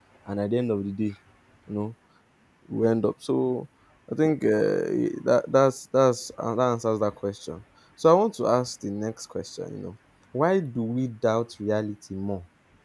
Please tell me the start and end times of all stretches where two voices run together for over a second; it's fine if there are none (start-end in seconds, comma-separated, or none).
none